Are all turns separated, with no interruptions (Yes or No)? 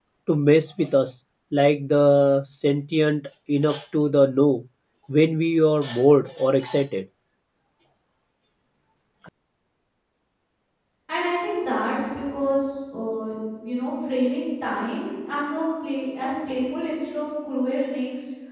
Yes